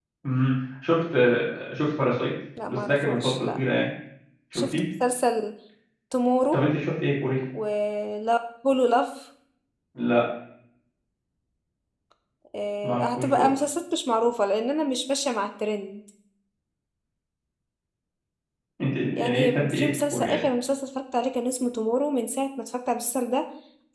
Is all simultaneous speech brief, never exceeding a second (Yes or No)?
No